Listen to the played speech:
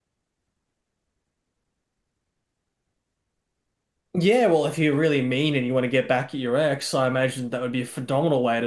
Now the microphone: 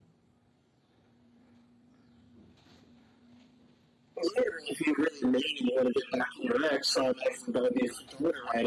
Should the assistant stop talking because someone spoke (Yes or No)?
No